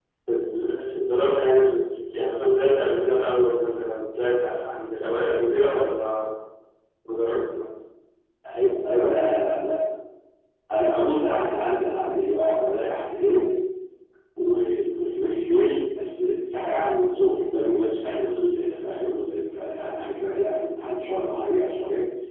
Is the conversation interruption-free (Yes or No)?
Yes